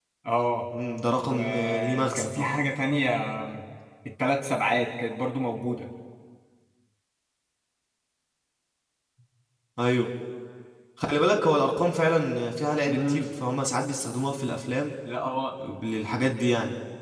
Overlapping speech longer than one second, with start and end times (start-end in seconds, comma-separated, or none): 1.3-2.5